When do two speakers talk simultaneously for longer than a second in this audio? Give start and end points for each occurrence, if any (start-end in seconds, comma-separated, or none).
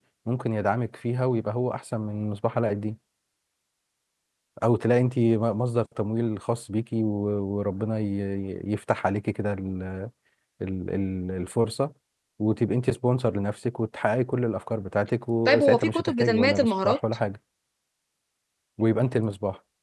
15.4-17.0